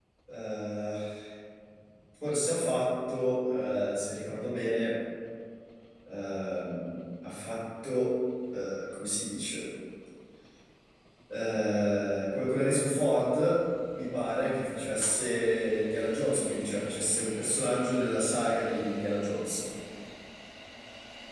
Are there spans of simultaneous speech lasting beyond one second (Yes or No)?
No